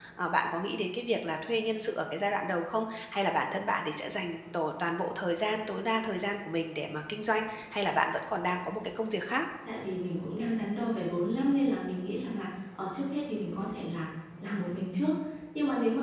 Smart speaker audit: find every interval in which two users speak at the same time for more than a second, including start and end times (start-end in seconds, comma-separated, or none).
none